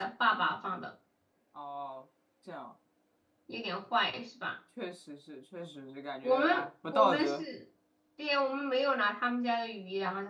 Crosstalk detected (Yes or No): Yes